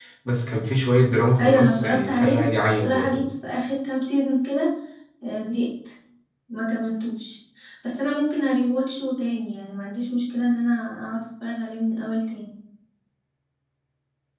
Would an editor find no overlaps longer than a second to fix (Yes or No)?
No